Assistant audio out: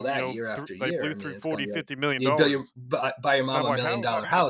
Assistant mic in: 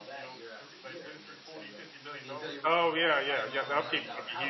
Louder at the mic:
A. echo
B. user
B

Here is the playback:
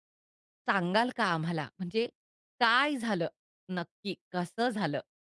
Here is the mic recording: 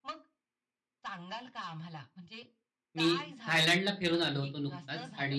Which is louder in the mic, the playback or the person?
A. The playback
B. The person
B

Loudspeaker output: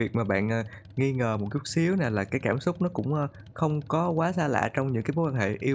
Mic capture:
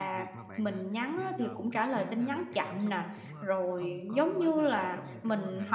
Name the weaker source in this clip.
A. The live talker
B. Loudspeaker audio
B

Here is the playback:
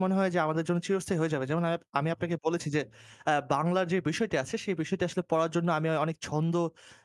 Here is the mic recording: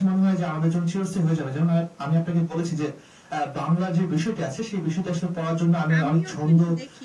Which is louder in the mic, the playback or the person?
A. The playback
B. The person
A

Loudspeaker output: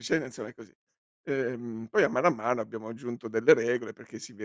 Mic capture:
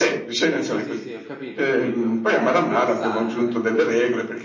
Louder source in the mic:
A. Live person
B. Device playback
B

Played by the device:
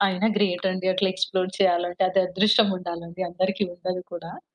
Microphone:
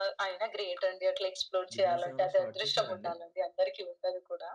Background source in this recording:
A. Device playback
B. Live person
B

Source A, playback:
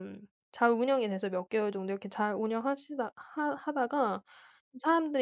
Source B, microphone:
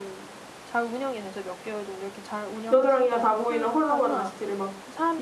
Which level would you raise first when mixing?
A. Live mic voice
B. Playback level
B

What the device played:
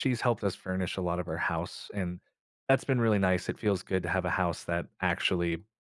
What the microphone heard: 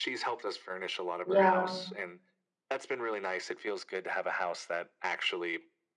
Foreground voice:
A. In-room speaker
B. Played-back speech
A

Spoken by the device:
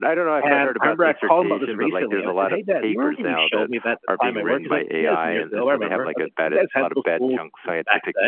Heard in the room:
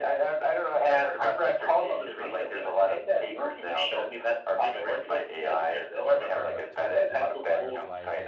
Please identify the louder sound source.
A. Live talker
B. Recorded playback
B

